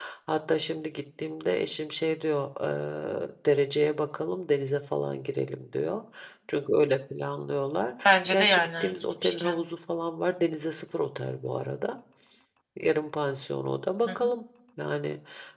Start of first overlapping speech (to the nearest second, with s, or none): 8 s